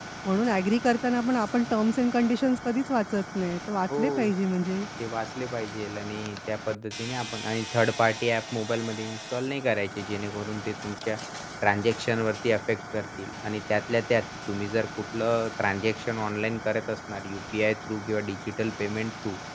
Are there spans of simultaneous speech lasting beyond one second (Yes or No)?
No